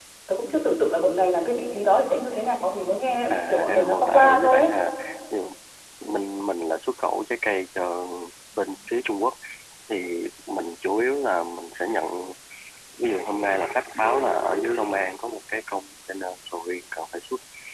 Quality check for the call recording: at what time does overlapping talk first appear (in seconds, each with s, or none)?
3.3 s